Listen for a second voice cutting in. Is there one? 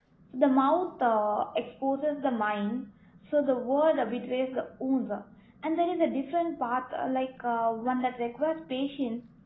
No

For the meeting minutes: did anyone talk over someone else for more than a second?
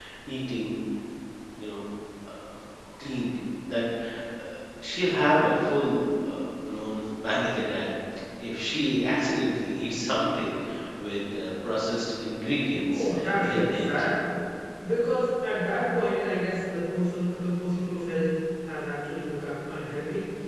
Yes, from 12.8 s

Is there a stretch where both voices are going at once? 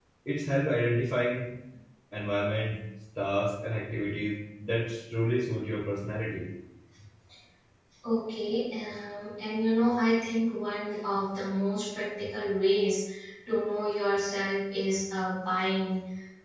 No

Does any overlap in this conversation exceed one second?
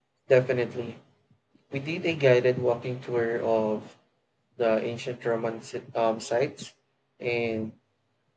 No

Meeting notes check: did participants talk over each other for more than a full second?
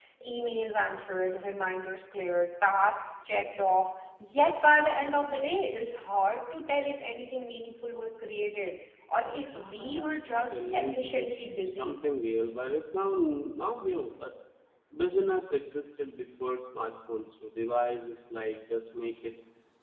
Yes, from 9.5 s

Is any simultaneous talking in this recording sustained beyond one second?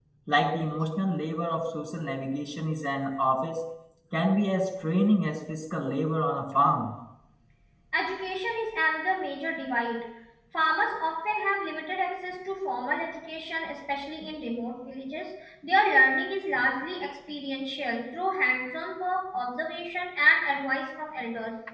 No

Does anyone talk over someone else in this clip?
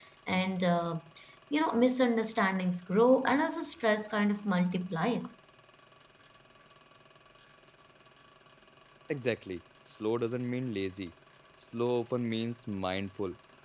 No

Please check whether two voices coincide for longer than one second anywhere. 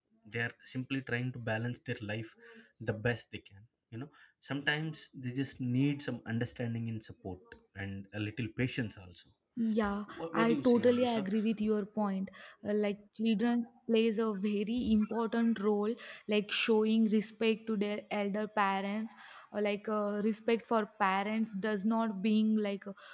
Yes, from 10.1 s

